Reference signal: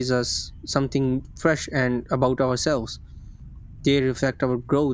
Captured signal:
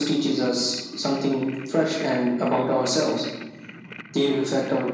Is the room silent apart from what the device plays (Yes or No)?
Yes